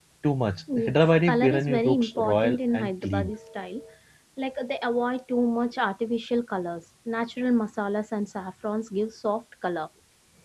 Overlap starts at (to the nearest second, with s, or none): 1 s